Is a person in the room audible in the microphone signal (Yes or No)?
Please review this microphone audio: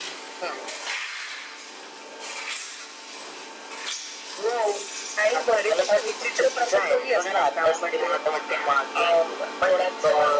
No